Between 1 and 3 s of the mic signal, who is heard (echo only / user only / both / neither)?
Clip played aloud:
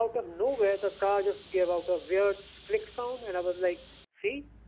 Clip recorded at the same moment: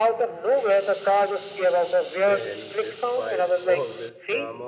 both